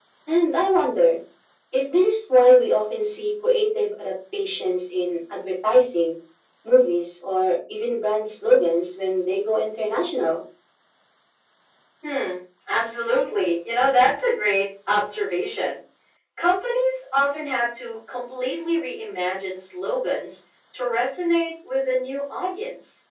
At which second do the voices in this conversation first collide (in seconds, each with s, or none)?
none